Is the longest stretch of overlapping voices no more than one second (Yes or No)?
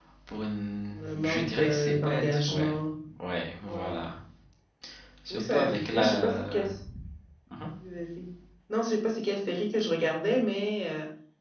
No